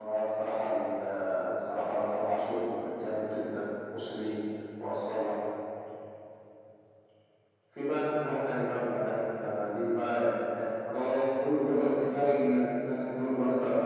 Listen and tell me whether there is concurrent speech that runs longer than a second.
No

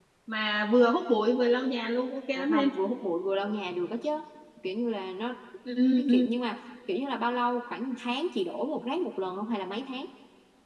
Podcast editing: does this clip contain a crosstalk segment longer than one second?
No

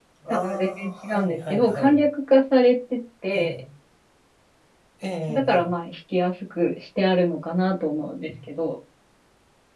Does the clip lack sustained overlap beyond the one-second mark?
No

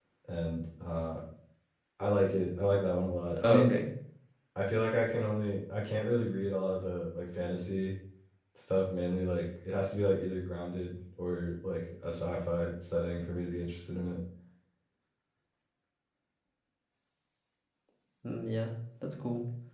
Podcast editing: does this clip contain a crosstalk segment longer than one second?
No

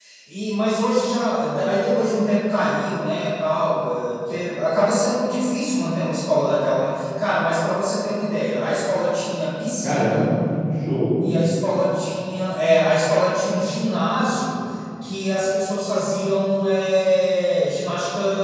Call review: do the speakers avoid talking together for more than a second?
Yes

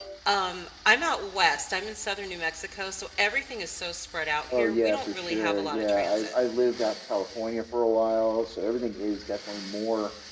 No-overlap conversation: No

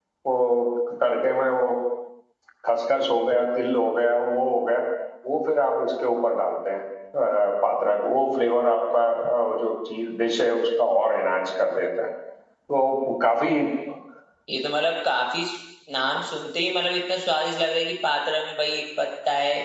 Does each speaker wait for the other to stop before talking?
Yes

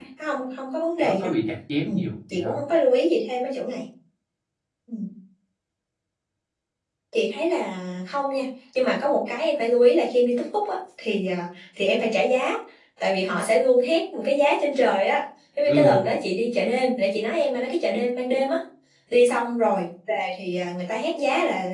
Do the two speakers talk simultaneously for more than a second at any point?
No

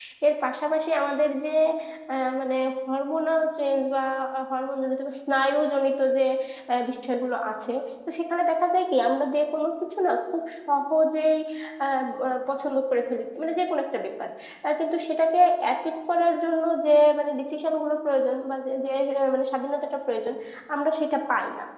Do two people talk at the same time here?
No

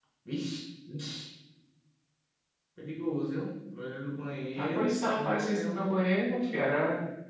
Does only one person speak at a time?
No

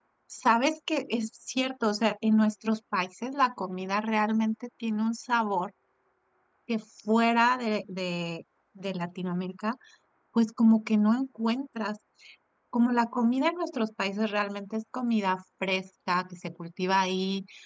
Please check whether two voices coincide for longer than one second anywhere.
No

